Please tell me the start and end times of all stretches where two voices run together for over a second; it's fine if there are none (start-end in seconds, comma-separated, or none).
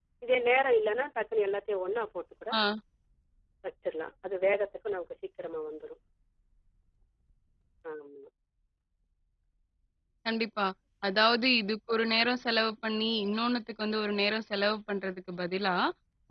none